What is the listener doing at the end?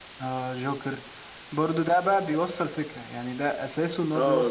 taking over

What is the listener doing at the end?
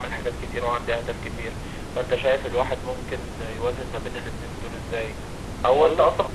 listening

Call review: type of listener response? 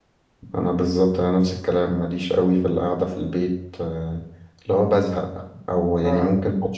listening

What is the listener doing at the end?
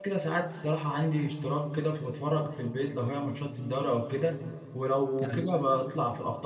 listening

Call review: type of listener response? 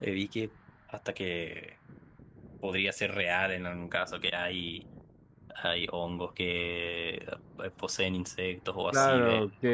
taking over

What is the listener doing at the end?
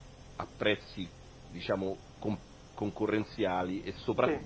listening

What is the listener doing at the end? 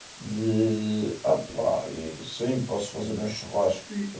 taking over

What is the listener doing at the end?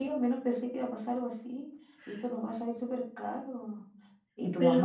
listening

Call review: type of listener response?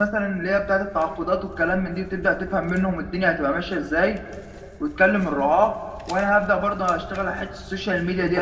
taking over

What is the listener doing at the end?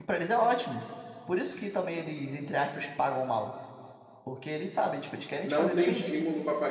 taking over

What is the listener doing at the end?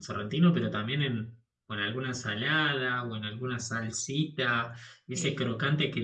listening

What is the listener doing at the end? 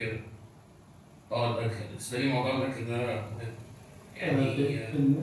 taking over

